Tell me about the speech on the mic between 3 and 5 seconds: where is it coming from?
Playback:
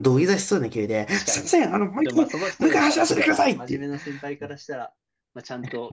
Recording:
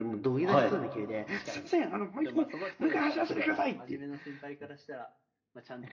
echo only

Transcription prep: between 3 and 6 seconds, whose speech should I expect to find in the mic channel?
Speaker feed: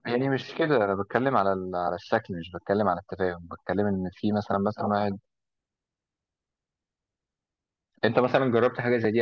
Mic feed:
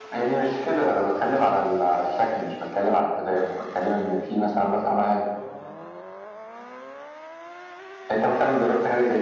echo only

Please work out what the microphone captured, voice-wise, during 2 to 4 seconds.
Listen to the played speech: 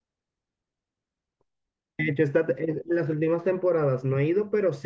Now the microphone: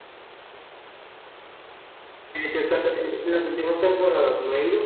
echo only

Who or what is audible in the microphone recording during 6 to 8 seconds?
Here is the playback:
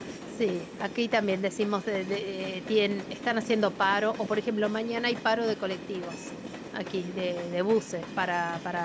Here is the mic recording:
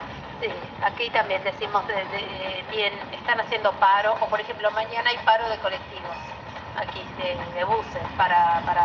echo only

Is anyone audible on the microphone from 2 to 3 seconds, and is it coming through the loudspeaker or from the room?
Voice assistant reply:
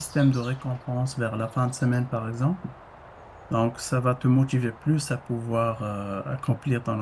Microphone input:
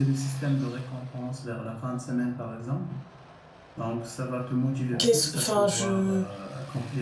echo only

